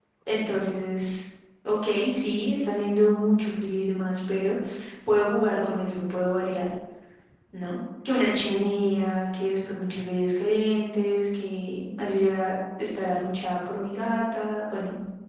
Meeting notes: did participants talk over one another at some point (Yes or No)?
No